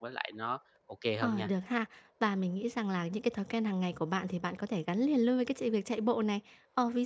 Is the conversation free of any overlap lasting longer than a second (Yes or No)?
Yes